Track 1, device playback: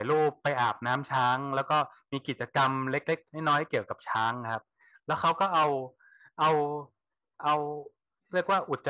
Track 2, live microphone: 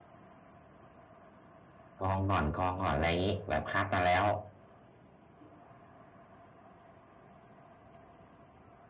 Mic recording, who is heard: user only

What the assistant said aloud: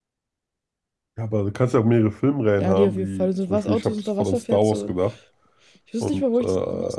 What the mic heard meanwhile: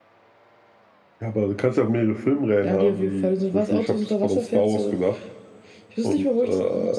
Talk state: echo only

